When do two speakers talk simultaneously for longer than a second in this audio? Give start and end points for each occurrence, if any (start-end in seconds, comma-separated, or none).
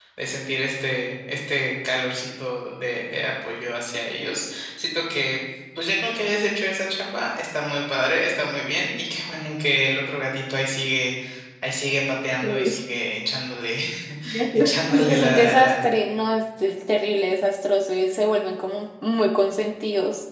14.6-15.8